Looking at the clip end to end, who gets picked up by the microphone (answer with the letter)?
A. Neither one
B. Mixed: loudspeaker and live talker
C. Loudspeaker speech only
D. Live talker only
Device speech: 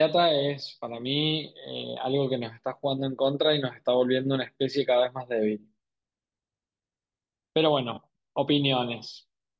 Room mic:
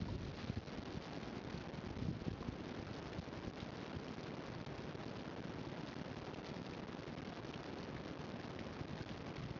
A